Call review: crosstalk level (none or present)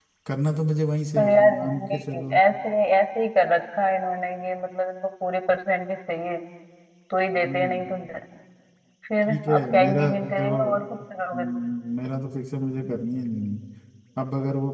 present